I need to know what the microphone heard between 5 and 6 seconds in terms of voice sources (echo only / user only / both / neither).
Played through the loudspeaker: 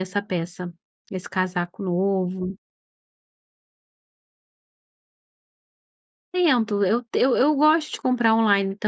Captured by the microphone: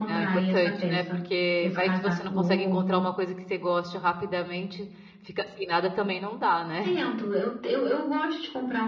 user only